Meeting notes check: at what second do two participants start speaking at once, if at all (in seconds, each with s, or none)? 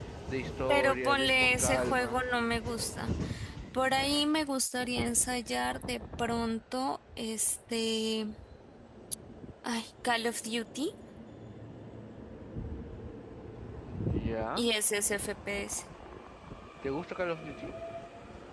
0.7 s